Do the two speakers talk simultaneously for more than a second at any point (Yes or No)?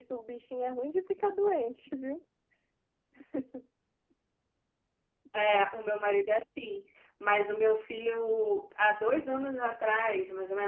No